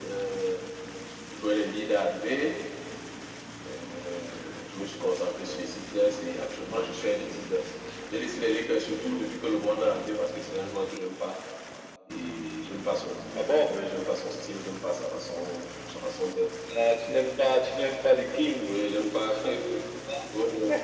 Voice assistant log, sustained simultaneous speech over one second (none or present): none